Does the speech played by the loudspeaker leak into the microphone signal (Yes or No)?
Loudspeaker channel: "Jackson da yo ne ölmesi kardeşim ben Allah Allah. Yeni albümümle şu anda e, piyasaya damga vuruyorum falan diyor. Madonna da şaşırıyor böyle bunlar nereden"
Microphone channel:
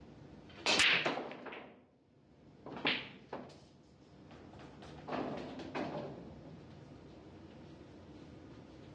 No